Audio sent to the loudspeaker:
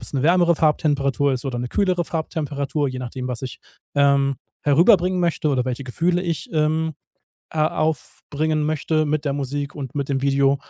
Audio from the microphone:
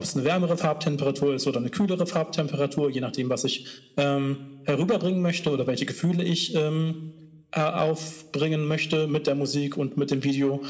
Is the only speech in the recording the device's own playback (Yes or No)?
Yes